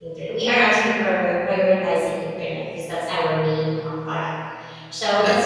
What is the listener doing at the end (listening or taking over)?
listening